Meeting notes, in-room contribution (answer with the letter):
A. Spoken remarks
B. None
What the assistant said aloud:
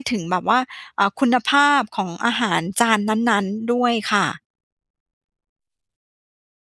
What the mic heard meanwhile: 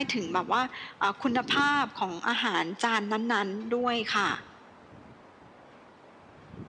B